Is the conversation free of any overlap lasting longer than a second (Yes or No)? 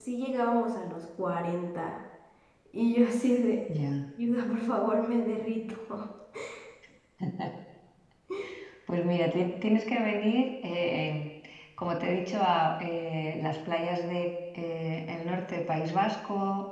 Yes